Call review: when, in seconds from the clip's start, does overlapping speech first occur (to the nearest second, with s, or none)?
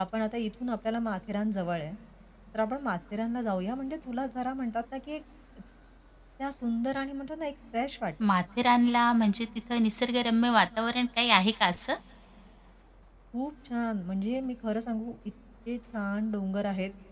none